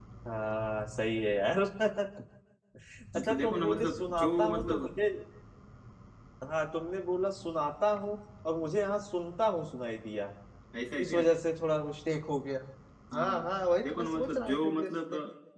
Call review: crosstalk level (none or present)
present